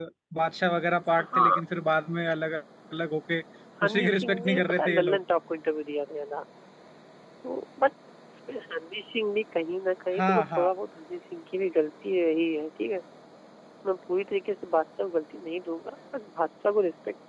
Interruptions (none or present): present